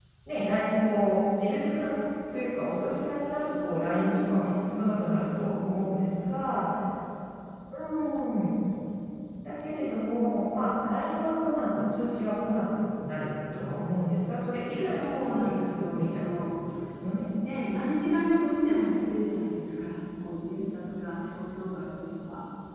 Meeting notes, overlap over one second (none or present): present